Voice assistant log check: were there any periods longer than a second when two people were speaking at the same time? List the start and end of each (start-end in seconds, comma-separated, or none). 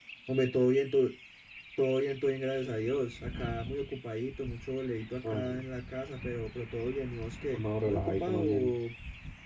7.5-8.8